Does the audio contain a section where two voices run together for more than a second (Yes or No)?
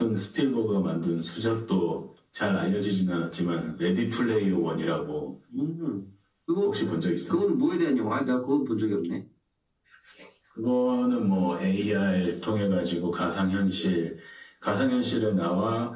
No